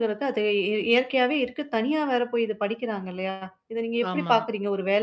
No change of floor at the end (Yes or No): Yes